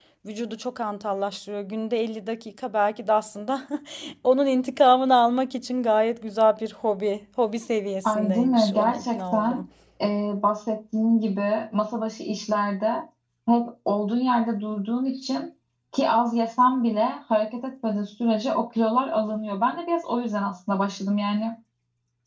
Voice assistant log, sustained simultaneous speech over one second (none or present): present